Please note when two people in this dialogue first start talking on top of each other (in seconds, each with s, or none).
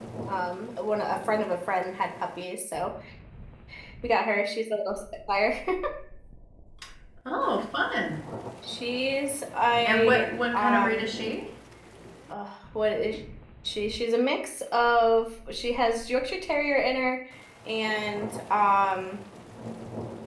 9.8 s